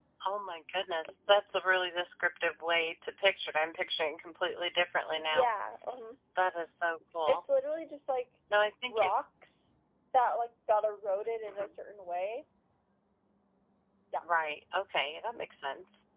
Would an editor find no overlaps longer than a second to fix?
Yes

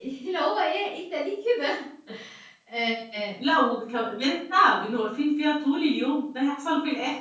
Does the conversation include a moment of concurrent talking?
No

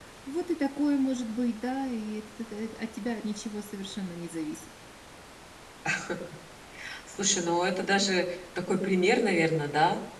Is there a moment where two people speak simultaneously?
No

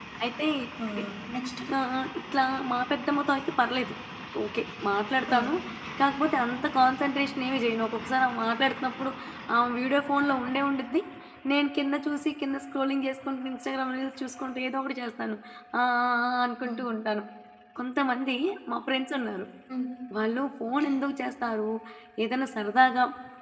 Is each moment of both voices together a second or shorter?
Yes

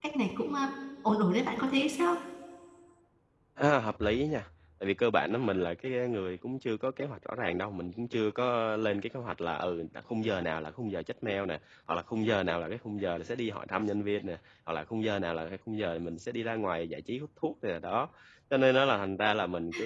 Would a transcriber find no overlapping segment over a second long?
Yes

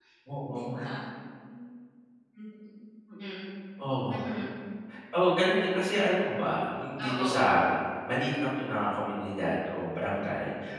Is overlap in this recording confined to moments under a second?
Yes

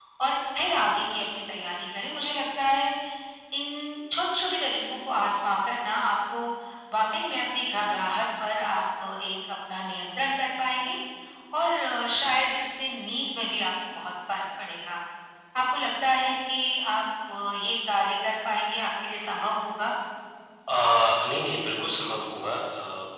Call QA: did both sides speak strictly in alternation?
Yes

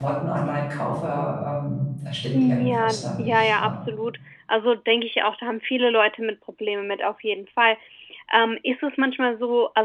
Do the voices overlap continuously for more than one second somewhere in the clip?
Yes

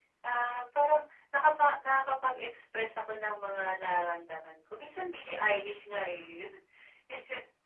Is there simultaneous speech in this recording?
No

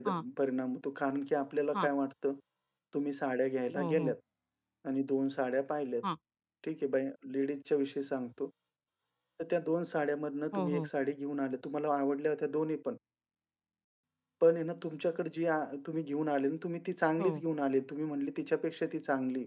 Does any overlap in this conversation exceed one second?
No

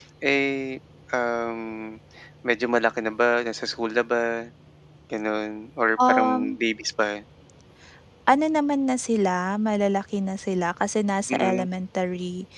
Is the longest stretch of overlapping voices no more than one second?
Yes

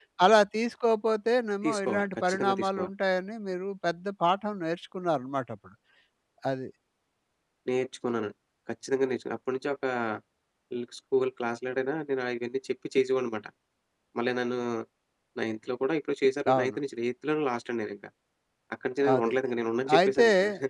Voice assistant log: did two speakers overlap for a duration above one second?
Yes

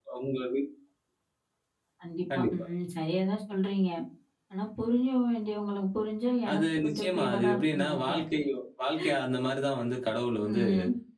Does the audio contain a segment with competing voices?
Yes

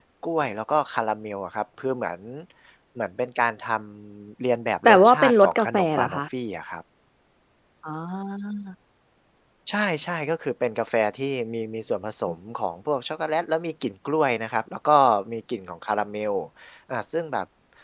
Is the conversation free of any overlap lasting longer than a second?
No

